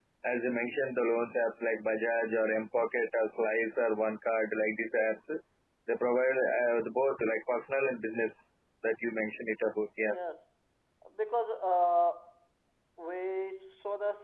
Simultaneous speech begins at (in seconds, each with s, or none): none